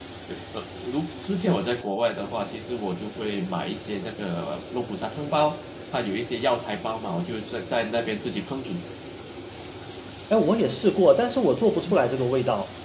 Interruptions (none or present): none